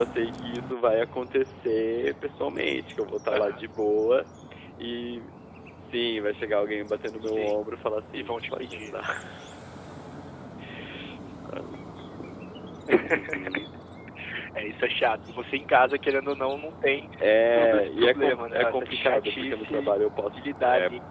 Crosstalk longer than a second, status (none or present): present